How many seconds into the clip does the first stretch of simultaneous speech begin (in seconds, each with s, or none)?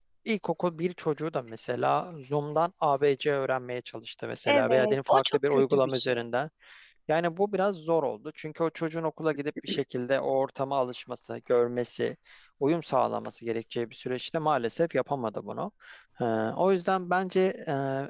4.5 s